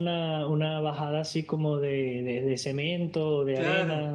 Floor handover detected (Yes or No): Yes